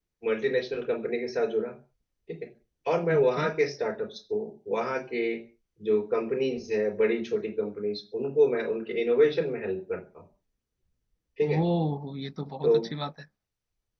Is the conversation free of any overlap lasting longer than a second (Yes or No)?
Yes